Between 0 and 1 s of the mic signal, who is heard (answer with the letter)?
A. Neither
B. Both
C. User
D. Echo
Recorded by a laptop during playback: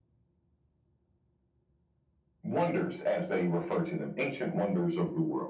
A